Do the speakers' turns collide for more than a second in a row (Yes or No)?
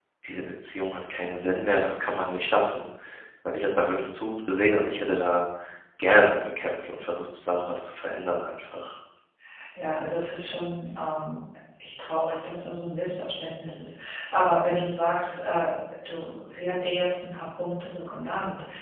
No